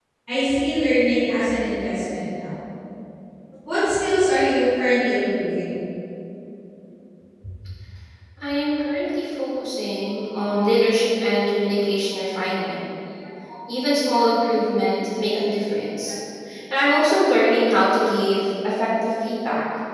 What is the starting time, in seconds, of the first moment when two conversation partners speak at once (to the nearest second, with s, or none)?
none